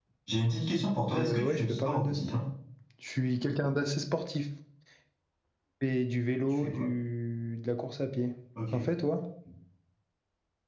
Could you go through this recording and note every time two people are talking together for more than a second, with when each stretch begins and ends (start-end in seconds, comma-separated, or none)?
1.1-2.4